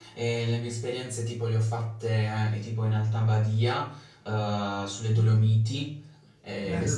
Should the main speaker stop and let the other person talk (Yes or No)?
No